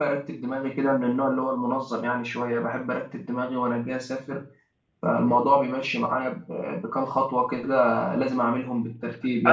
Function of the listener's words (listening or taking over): taking over